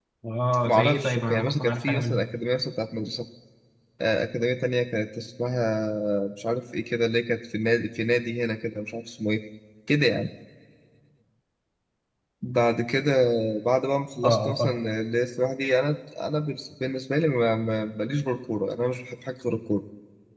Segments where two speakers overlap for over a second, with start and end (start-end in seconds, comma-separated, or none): 0.7-2.2